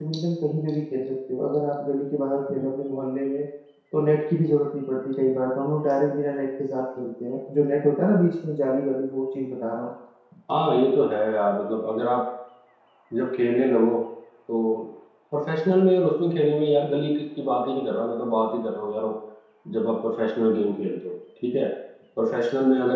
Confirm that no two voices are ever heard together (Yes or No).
Yes